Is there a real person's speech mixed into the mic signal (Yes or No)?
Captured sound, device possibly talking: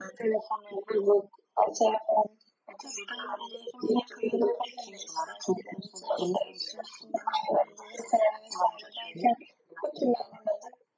No